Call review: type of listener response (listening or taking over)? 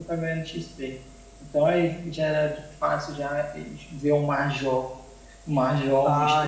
taking over